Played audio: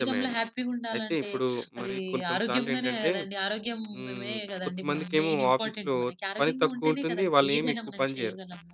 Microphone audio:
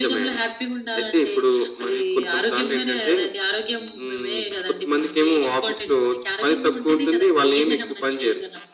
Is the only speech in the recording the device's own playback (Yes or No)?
Yes